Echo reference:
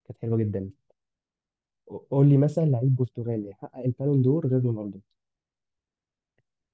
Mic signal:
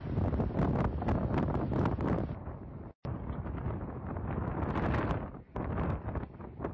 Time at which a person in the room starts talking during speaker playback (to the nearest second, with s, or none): none